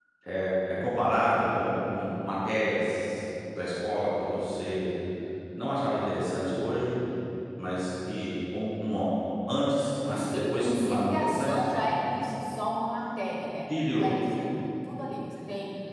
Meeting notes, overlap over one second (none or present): present